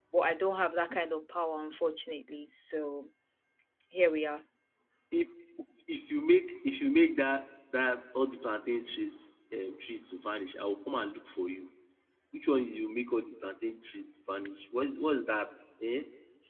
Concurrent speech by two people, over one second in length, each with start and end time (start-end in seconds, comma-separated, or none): none